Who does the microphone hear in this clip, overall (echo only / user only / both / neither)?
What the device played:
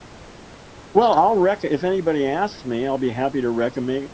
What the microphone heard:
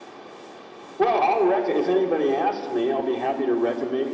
echo only